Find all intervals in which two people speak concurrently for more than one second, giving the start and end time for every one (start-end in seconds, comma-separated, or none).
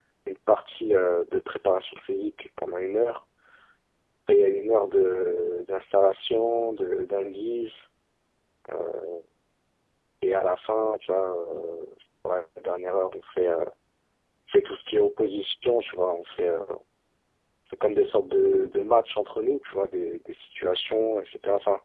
none